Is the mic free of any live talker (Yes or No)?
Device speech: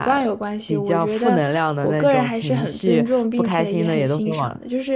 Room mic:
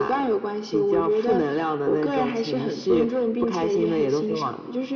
Yes